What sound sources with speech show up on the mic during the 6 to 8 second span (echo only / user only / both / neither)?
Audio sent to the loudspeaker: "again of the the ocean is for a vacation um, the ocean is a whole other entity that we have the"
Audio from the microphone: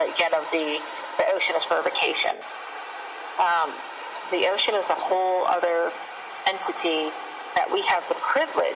echo only